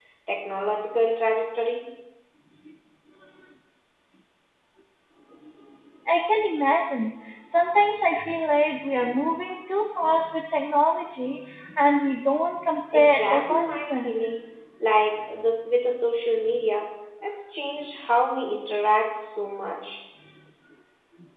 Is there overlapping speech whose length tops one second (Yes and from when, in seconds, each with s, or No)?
Yes, from 12.9 s